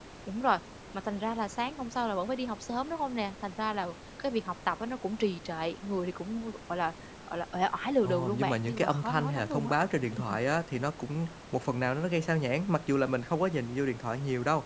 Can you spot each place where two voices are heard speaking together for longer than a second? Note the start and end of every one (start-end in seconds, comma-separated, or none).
8.0-9.7